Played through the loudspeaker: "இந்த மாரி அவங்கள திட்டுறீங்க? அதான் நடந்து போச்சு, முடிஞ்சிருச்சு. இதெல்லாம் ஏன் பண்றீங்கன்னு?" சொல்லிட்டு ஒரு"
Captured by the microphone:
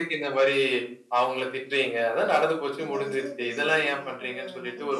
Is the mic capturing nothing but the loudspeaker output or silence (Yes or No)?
No